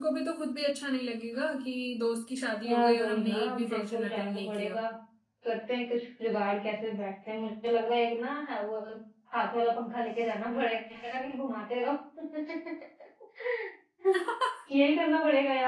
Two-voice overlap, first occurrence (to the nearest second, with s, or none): 3 s